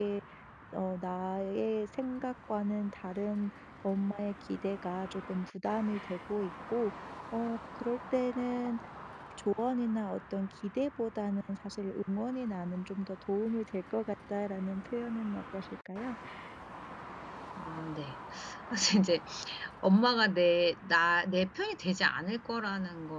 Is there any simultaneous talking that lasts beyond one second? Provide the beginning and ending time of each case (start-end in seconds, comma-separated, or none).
none